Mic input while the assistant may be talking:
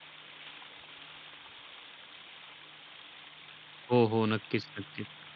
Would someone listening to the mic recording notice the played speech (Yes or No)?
No